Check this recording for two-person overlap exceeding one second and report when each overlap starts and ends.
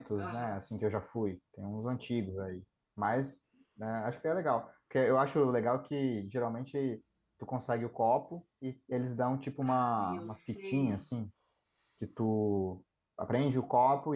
9.7-11.0

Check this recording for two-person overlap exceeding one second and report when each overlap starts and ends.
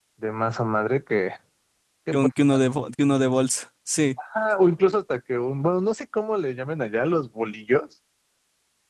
none

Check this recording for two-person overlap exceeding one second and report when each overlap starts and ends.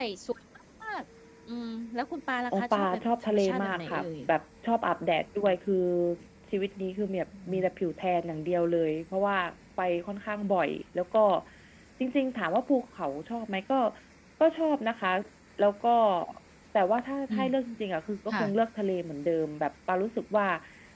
2.5-4.0

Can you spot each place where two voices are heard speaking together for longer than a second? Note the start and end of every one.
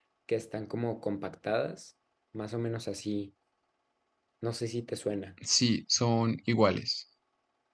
none

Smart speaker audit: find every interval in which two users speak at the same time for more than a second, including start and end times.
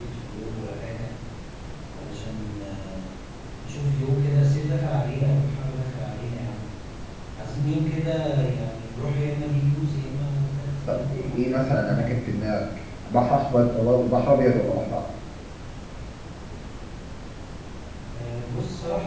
10.9-12.2

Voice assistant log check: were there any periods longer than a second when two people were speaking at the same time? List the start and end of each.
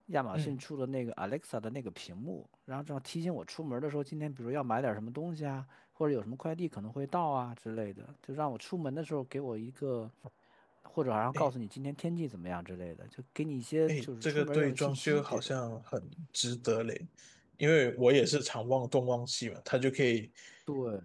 13.9-15.5

